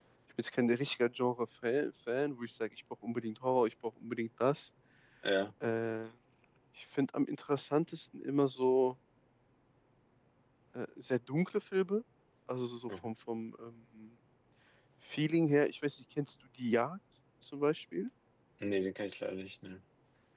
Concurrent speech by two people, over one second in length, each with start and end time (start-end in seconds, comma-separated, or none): none